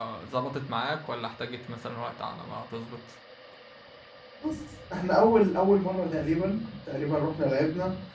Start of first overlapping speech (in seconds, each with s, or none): none